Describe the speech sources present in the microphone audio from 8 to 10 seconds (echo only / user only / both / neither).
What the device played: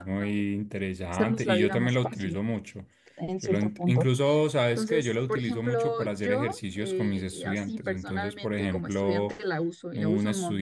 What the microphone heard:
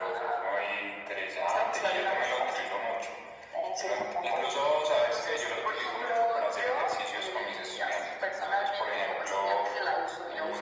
echo only